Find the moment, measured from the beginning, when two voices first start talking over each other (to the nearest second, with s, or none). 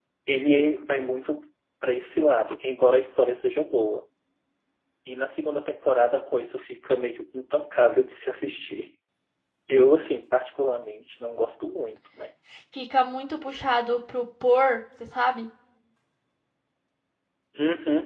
none